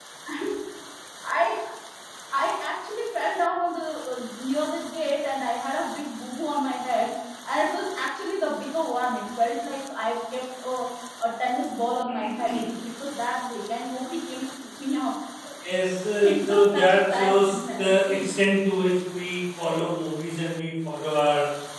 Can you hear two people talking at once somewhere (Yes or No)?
Yes